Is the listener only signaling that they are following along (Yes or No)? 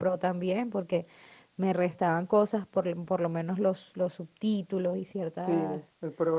No